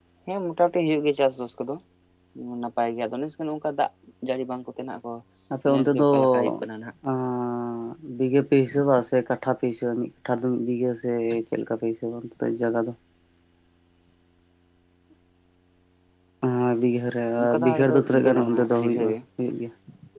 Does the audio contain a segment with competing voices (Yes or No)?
Yes